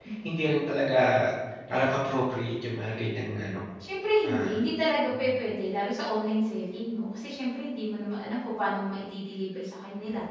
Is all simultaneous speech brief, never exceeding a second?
Yes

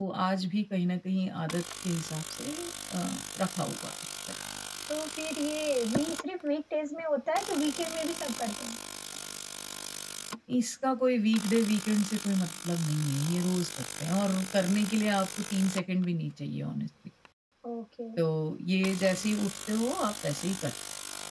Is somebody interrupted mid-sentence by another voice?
No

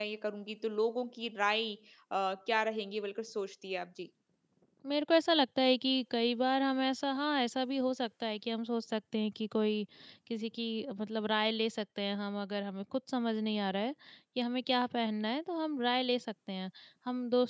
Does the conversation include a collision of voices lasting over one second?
No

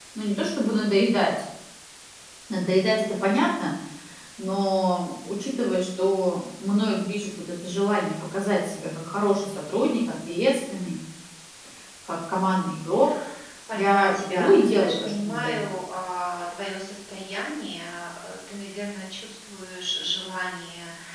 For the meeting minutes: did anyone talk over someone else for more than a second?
Yes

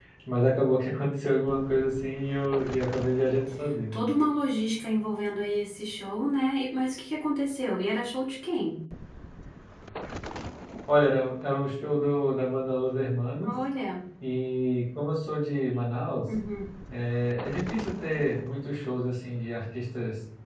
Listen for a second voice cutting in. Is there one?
No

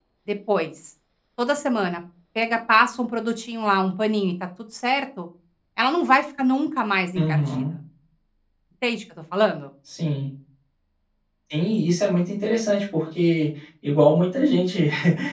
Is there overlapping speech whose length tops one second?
No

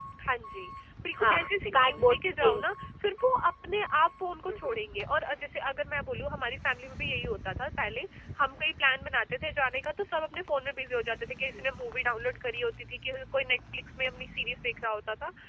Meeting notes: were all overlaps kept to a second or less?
No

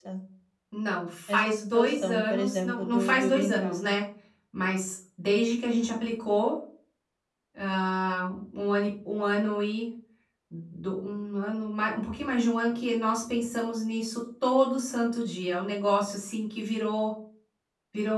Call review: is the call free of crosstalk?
No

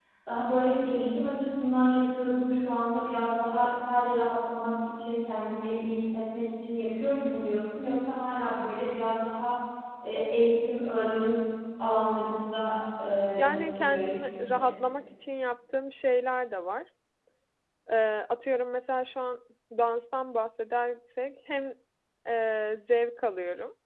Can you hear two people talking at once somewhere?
Yes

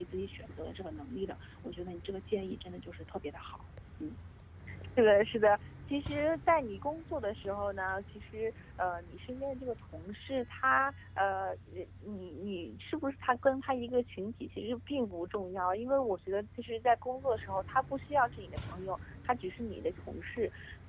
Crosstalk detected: No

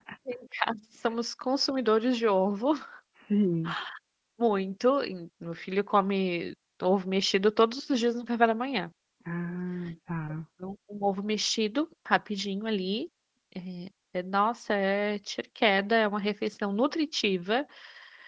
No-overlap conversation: Yes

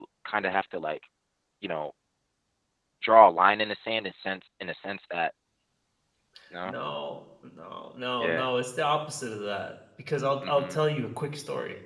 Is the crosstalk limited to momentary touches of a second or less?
Yes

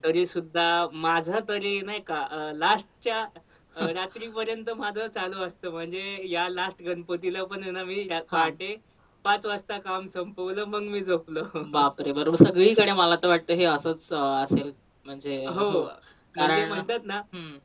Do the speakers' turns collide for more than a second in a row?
No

